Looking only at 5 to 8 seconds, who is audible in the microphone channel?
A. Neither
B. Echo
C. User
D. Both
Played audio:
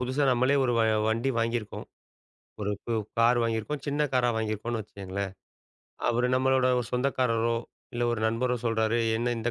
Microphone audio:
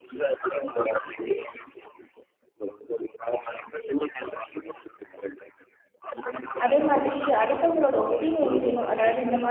D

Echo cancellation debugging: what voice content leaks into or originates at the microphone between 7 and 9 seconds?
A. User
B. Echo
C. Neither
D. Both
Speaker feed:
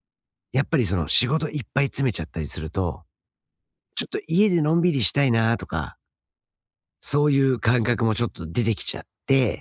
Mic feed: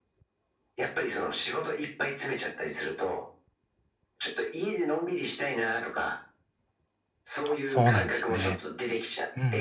D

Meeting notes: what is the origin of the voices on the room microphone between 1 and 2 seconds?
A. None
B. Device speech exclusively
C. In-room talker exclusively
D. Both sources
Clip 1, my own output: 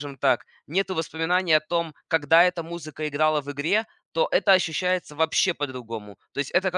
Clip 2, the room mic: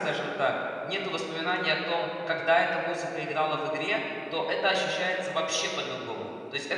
B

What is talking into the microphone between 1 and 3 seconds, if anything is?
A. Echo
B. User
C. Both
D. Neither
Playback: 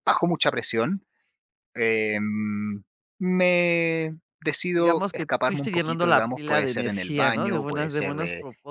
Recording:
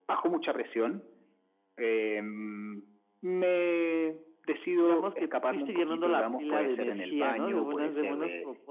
A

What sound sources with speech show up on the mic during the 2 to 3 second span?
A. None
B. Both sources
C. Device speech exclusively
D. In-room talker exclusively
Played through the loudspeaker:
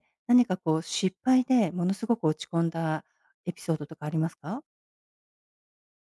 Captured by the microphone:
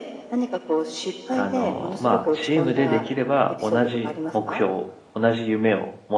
B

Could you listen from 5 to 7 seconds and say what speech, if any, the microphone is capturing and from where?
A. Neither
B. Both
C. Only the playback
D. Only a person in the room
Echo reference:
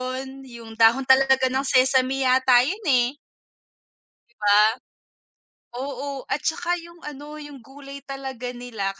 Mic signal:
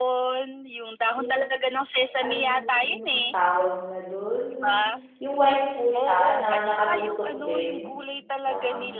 B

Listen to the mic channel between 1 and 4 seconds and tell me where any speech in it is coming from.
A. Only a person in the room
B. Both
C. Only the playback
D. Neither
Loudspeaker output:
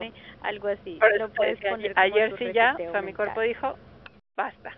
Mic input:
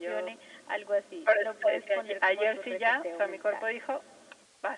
C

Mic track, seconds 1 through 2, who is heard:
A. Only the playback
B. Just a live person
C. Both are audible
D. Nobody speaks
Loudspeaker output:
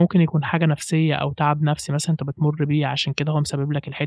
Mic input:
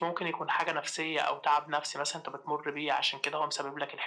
A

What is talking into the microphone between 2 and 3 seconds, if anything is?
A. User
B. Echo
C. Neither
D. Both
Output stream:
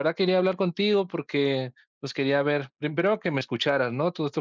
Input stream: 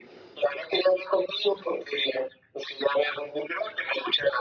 B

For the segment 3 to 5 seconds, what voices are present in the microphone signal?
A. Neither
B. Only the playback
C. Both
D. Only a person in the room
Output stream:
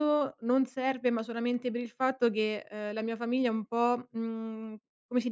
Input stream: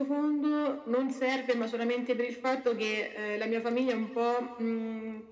B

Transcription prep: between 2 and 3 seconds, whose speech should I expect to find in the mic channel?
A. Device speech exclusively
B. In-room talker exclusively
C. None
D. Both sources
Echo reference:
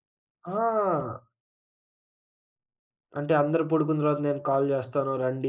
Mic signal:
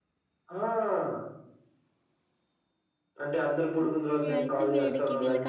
C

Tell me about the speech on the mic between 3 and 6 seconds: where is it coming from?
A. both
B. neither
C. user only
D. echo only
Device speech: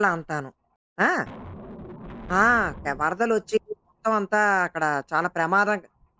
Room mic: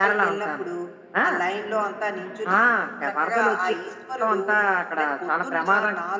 A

